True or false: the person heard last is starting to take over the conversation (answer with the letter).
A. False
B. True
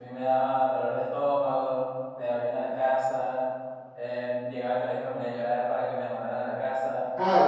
B